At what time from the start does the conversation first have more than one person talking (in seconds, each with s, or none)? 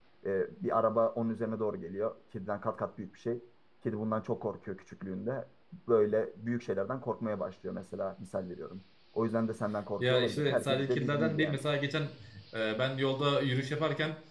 10.0 s